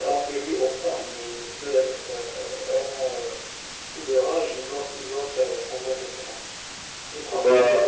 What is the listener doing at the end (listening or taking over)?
taking over